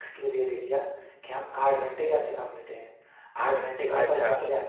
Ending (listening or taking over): listening